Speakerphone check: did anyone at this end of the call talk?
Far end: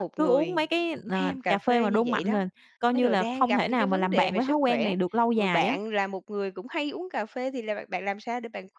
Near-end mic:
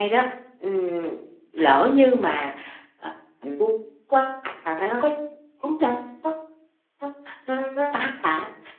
Yes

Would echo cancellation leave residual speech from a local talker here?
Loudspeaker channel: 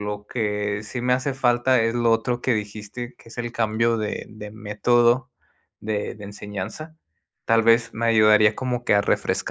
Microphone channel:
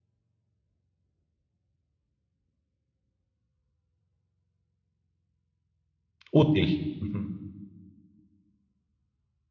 Yes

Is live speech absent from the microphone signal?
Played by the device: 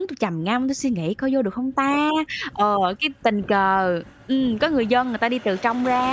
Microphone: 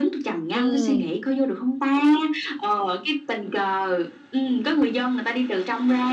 No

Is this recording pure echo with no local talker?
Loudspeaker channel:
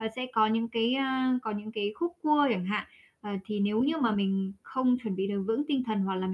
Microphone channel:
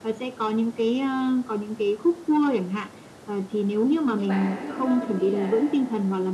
No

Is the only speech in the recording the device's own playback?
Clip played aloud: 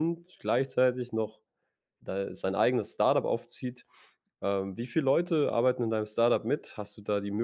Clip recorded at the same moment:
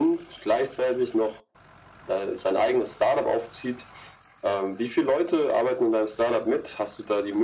Yes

